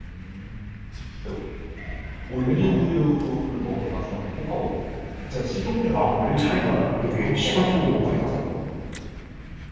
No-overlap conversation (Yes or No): No